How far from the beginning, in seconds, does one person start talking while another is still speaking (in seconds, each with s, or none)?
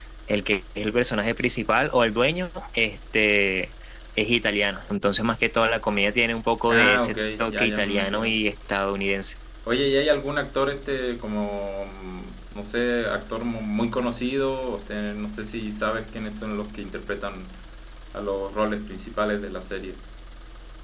6.7 s